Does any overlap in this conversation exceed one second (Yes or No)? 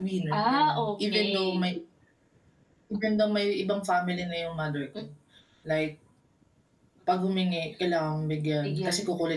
Yes